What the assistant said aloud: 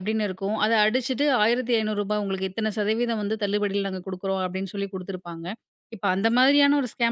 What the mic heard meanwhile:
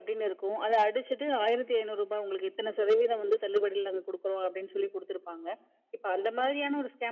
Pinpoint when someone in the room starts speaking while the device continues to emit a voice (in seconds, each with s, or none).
none